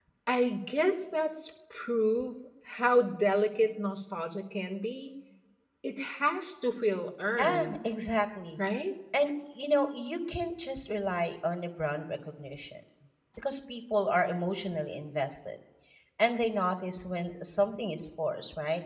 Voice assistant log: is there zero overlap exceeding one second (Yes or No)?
Yes